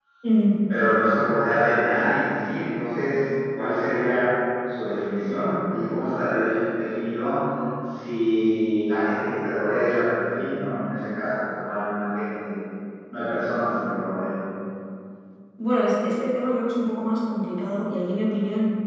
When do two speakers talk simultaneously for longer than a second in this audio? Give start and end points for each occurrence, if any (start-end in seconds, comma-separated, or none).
none